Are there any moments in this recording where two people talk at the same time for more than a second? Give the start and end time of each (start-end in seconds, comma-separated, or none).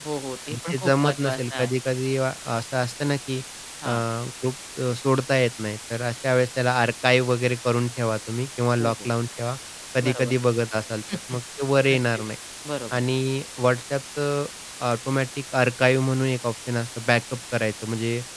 0.5-1.7